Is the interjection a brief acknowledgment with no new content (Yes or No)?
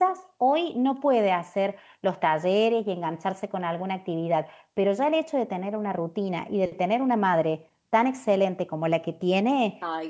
Yes